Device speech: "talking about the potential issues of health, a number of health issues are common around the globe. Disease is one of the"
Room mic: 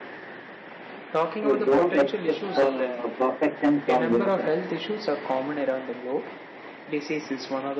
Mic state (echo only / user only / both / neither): both